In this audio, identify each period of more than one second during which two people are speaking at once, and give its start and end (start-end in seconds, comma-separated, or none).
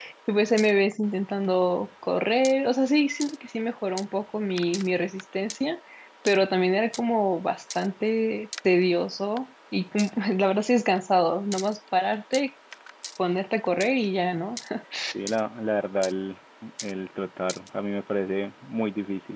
none